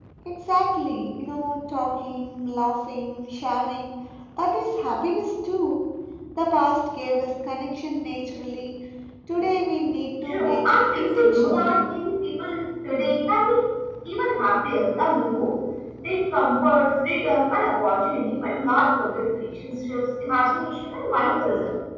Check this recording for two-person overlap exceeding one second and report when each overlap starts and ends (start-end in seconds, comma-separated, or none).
10.3-11.8